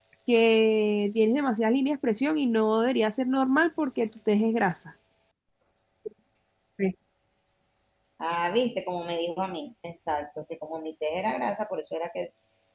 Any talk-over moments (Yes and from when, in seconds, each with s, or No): No